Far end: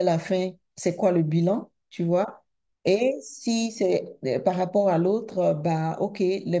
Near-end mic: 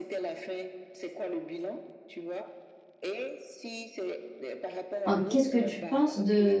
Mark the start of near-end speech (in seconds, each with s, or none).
5.0 s